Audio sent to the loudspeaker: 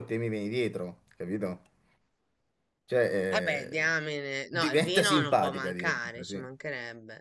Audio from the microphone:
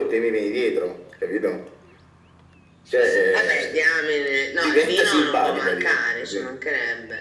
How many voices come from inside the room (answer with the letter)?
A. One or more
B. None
B